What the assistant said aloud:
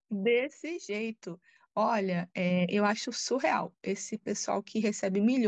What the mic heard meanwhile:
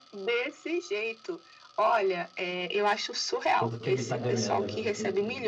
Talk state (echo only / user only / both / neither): both